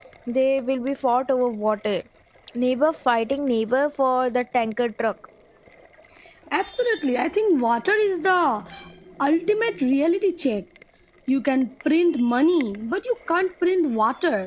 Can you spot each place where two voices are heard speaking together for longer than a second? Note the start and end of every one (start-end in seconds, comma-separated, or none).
none